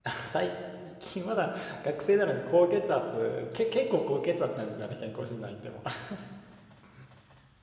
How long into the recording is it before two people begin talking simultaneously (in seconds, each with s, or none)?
none